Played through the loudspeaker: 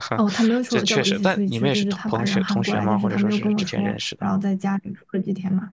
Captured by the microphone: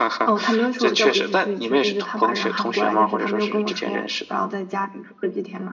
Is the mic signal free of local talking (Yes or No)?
Yes